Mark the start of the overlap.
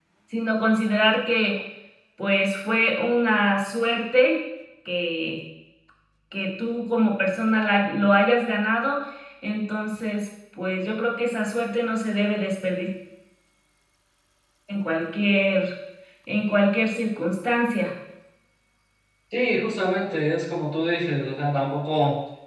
none

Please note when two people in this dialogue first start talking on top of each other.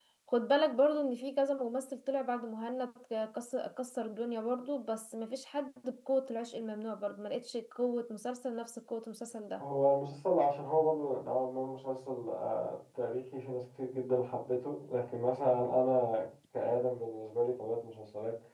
none

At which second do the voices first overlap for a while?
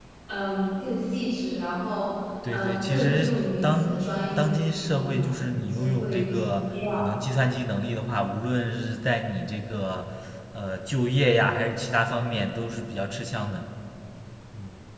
2.4 s

